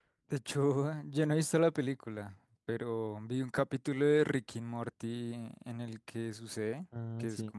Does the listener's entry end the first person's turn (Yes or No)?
No